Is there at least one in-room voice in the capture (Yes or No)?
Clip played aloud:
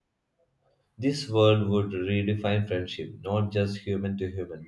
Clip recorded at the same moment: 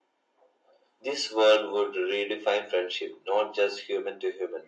No